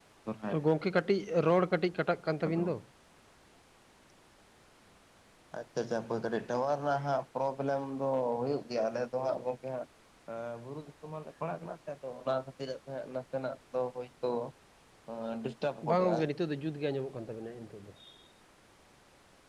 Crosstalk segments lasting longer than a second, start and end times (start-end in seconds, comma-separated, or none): none